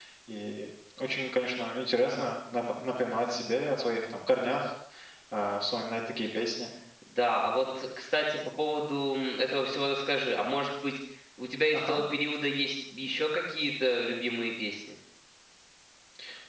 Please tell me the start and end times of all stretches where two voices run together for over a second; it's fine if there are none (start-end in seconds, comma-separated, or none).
none